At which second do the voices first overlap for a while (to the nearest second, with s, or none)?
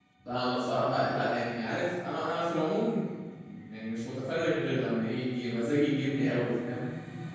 none